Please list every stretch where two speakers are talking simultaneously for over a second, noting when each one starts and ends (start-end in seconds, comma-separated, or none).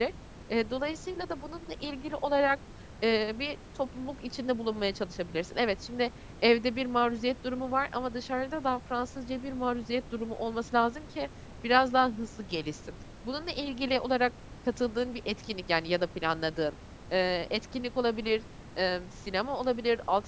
none